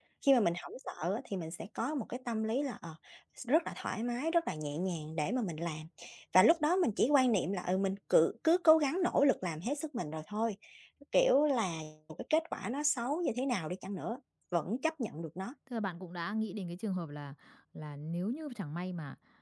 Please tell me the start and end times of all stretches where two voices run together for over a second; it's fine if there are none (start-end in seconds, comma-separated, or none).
none